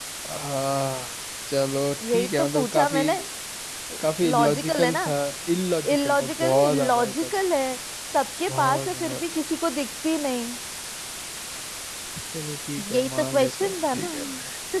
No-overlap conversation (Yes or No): No